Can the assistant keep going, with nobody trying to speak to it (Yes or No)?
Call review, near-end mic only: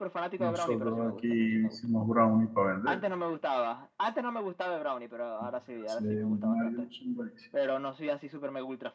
No